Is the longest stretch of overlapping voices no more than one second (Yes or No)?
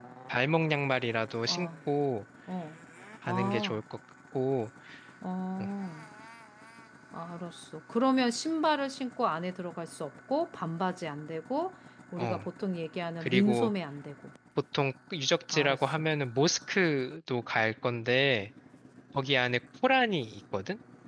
Yes